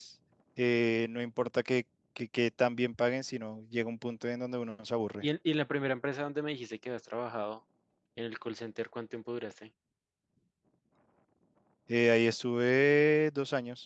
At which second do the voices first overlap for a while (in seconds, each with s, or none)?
none